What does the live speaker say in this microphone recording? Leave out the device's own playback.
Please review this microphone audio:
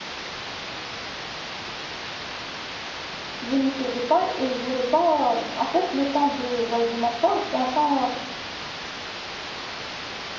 je m'y plaisais pas et je voulais pas. euh, en fait, le temps de, voilà, de mon sport, c'est un temps euh,

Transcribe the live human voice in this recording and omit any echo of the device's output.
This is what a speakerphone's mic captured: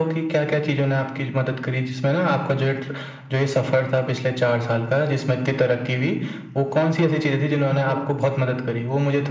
हाँ

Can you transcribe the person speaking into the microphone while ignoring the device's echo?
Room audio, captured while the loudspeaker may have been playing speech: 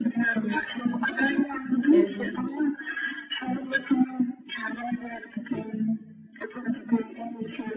E,

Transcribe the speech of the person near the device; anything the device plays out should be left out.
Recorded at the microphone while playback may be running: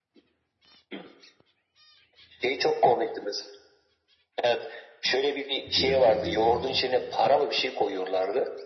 gülümsetiyor yüzümüzü.

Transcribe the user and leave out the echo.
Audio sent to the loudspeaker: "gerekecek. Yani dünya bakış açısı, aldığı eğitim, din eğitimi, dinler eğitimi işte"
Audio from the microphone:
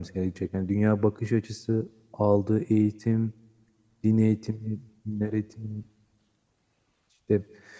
none

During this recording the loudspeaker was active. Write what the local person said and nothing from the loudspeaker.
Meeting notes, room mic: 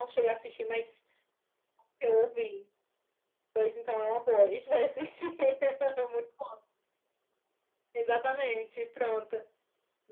none

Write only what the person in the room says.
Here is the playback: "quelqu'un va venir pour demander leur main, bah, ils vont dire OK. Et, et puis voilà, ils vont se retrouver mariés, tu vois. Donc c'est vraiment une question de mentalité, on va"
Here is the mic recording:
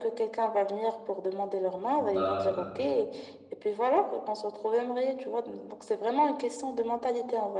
Bah,

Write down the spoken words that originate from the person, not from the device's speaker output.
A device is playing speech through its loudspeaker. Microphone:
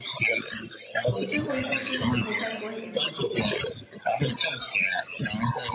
嗯，最后一部是什么？可以再说一遍吗？

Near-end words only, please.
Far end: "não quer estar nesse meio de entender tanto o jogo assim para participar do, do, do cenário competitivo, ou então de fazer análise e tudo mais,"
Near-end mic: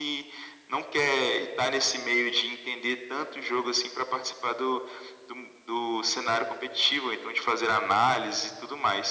none

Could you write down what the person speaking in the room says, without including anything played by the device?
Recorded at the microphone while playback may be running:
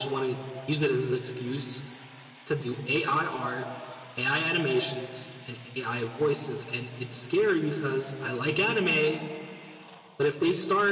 none

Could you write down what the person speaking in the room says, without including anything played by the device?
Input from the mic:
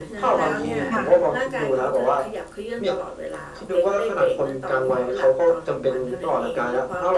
ค่ะ

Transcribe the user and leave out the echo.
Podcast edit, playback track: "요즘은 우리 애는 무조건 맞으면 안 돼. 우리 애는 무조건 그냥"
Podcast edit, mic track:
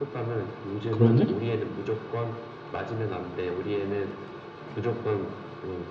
그러네?

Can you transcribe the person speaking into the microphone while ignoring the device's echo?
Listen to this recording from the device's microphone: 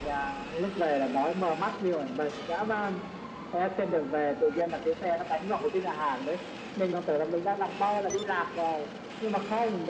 none

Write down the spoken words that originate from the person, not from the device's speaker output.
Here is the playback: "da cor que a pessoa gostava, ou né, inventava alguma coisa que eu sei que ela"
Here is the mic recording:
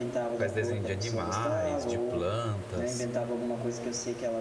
faz desenho de animais, de plantas.

